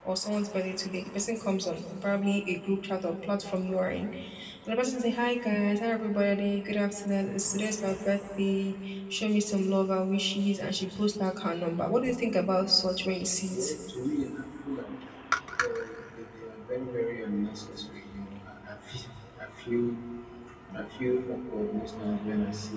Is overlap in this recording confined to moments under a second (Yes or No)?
Yes